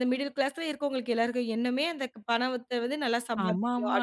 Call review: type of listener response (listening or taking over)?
taking over